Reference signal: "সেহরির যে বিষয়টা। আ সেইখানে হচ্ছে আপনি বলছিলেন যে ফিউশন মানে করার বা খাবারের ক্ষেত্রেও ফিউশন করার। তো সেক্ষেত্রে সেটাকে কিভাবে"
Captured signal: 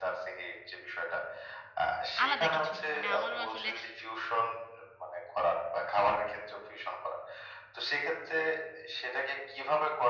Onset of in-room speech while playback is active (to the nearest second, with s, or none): 2 s